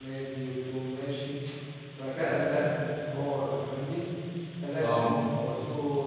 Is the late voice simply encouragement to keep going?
Yes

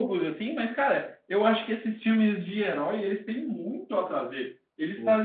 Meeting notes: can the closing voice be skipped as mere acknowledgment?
Yes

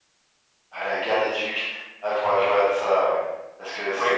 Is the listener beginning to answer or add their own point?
Yes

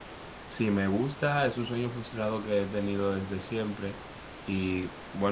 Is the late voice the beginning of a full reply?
No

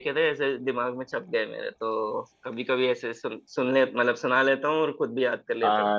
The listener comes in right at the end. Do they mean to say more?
Yes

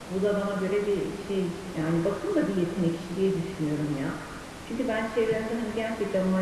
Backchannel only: Yes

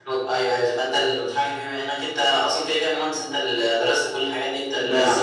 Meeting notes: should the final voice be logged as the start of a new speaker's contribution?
Yes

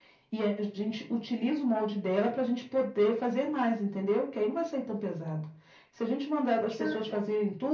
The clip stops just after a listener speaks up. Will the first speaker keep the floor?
Yes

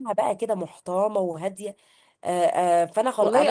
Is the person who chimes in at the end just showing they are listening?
No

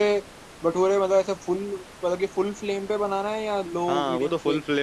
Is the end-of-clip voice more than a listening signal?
Yes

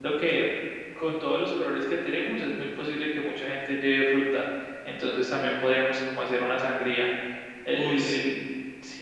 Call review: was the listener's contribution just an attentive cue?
Yes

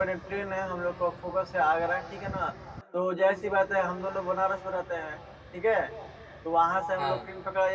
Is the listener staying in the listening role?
Yes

